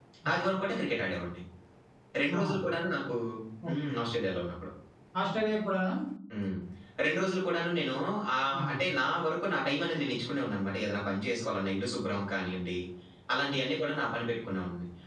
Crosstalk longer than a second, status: none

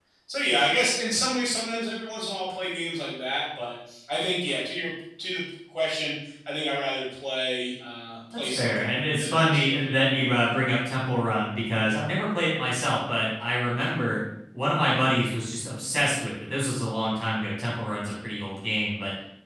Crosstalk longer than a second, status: present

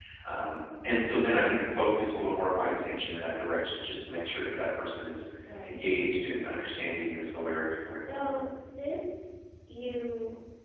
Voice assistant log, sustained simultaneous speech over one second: none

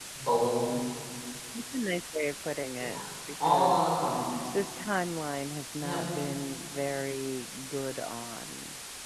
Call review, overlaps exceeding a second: none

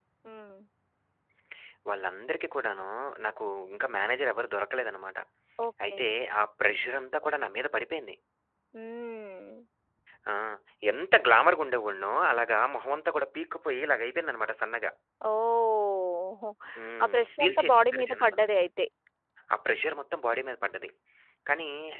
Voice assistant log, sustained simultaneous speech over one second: present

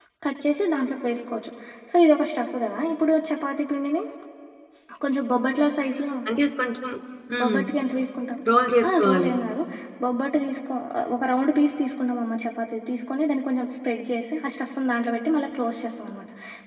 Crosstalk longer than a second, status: none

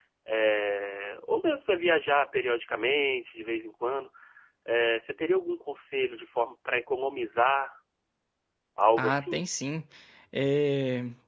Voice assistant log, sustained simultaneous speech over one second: none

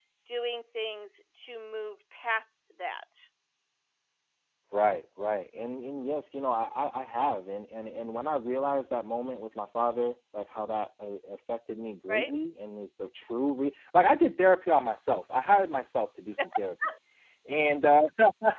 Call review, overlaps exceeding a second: none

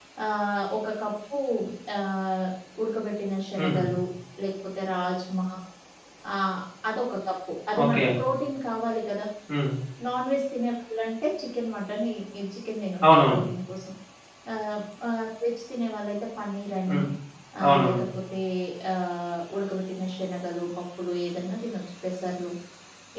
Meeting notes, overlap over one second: none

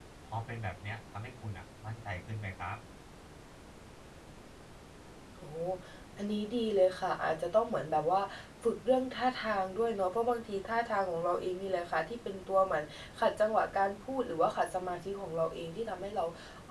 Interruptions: none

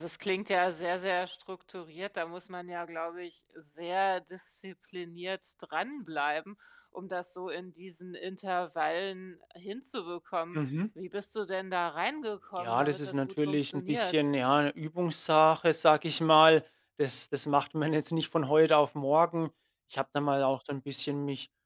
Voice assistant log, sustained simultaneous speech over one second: present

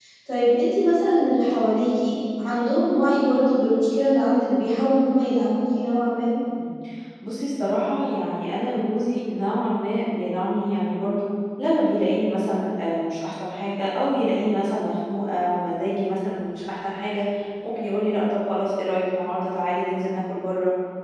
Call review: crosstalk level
none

